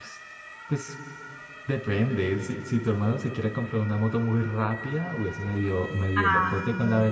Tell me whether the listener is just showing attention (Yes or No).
Yes